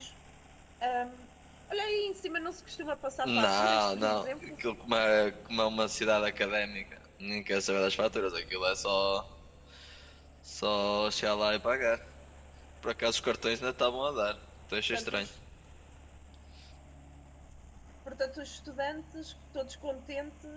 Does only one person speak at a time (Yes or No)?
No